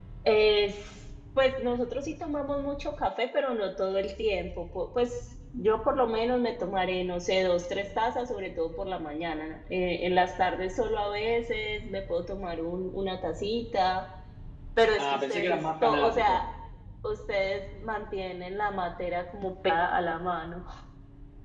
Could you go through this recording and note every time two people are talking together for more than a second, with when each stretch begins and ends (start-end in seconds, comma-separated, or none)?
15.0-16.4